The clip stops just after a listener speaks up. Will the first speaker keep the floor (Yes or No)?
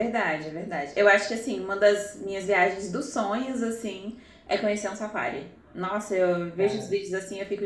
Yes